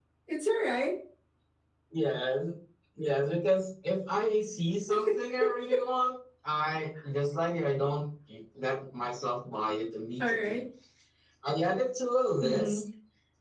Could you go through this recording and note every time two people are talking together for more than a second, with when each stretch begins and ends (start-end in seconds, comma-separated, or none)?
none